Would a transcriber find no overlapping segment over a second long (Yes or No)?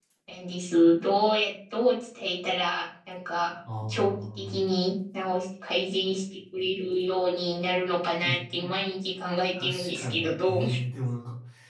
No